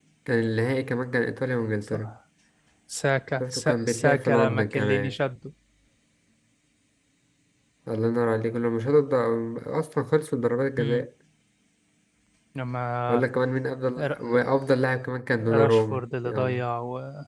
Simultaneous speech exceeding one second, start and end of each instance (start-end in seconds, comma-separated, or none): 3.4-5.1, 15.4-16.6